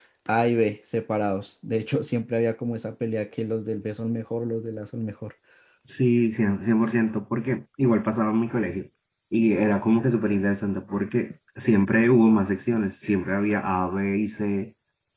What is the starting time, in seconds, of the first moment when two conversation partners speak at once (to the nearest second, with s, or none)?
none